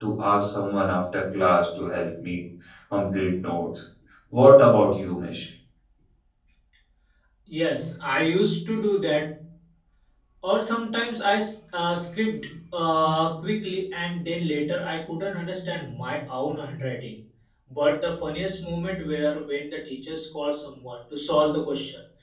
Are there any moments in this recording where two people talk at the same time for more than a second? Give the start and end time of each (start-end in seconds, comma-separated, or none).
none